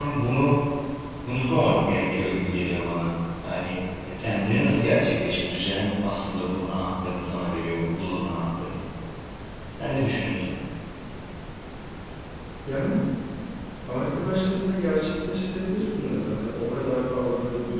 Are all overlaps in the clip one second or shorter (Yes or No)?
Yes